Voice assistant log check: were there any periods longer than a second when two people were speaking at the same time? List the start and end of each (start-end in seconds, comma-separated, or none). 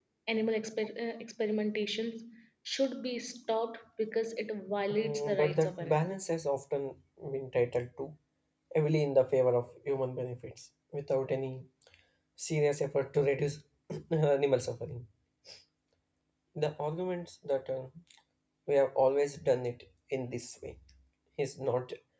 4.9-6.2